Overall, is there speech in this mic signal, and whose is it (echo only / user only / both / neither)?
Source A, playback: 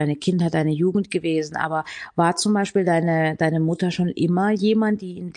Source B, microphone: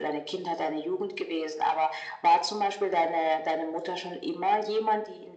echo only